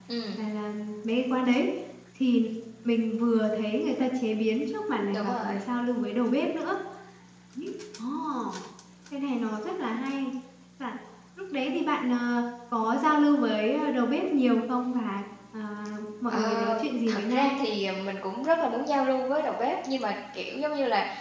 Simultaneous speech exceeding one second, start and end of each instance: 16.3-17.5

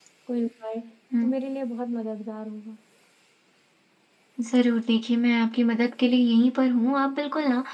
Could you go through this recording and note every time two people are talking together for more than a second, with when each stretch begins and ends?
none

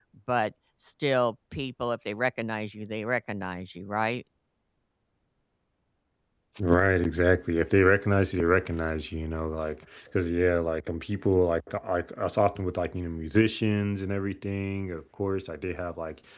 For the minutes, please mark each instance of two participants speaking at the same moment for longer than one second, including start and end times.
none

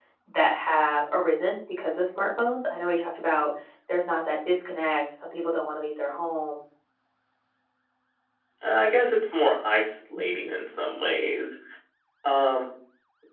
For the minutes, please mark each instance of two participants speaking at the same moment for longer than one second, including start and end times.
none

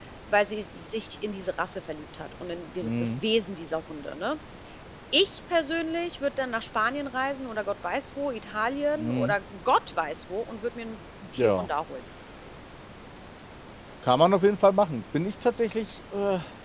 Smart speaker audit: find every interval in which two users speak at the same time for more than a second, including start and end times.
none

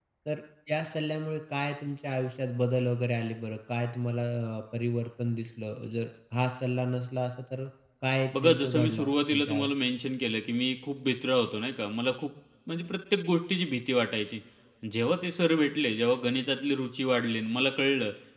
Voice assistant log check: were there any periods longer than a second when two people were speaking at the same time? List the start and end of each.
8.4-9.7

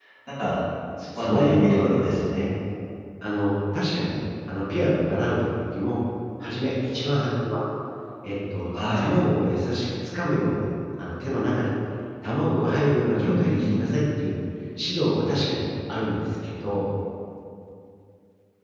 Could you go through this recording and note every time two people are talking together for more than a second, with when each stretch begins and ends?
1.1-2.5

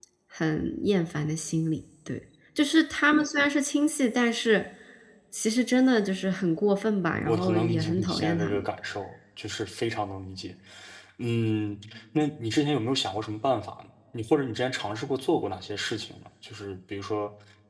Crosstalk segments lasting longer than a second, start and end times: 7.3-8.6

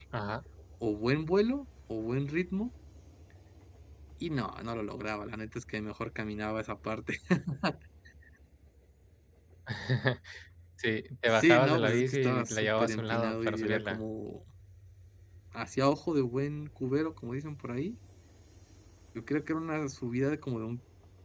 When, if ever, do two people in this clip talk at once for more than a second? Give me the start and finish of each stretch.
11.3-14.0

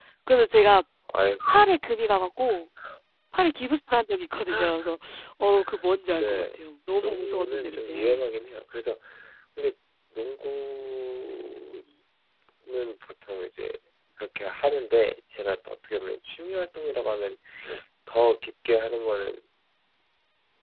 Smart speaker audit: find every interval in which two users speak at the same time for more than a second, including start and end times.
6.1-8.2

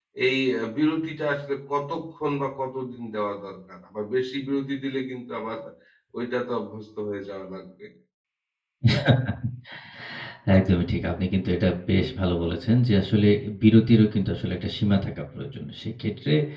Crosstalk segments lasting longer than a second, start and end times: none

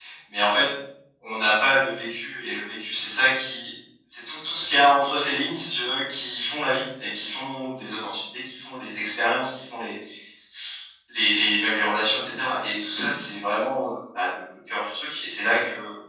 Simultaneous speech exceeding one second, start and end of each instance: none

